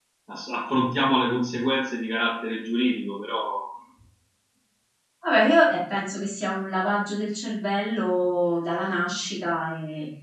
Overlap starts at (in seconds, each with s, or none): none